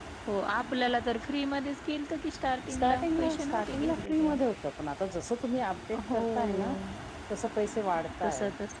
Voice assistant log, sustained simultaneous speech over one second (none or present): present